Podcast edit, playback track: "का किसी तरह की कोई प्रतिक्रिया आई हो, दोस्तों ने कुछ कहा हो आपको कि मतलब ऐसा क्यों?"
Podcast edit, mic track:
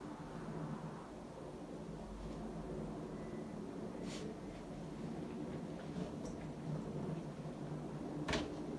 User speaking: No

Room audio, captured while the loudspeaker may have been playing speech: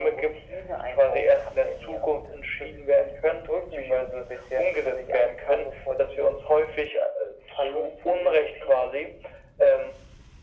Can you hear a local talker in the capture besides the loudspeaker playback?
No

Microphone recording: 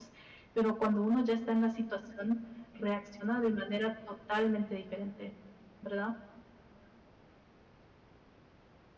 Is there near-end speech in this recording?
Yes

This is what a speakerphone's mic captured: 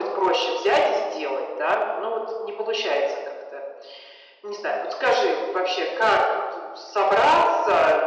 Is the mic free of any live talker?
Yes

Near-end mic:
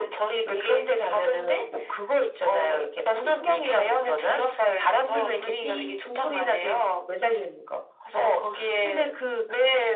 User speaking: No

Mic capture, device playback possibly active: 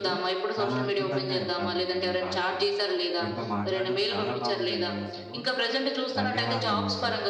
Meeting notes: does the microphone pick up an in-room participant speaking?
Yes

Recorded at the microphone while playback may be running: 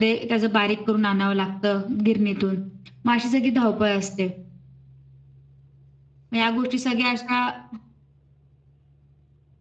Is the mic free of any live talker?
No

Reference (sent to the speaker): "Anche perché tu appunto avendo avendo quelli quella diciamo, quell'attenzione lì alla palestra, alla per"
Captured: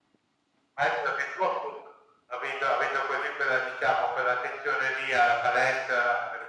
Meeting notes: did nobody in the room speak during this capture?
Yes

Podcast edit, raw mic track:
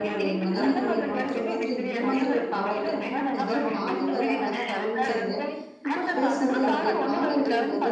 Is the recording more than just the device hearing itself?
Yes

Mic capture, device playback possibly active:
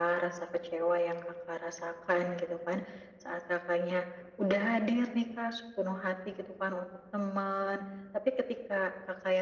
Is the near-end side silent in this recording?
Yes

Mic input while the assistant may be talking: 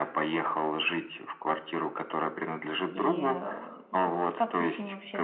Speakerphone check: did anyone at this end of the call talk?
Yes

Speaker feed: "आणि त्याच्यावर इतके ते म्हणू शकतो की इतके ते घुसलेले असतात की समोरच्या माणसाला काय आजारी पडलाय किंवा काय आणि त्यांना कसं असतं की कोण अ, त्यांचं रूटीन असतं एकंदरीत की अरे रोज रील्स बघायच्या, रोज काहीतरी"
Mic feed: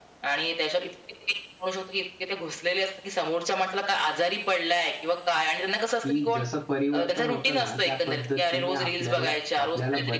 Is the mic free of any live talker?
No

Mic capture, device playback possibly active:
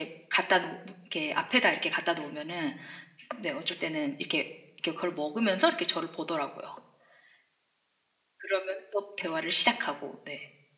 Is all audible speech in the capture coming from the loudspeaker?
Yes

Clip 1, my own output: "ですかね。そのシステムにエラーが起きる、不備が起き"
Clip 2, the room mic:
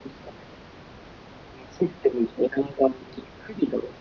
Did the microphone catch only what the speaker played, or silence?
Yes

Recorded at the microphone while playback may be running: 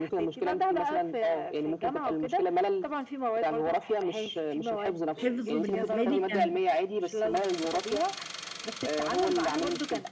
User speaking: Yes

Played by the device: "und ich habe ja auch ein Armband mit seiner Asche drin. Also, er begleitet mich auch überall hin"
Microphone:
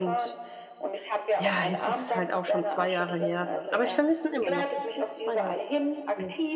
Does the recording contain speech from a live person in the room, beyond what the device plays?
Yes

